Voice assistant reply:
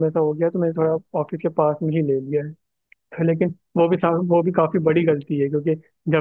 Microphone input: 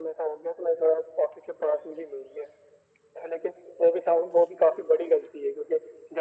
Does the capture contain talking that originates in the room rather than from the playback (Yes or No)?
No